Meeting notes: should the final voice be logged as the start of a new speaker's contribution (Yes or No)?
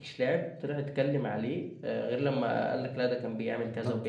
Yes